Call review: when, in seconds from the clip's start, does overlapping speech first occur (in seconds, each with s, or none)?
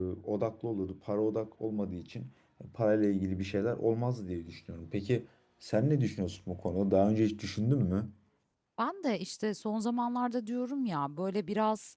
none